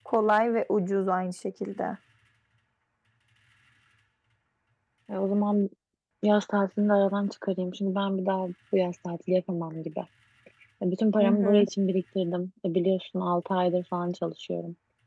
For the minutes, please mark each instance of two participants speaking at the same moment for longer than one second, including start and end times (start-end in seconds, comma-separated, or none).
none